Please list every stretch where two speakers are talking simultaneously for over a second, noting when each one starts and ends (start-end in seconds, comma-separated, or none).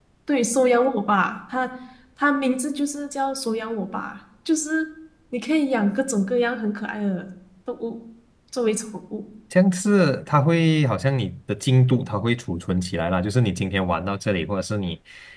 none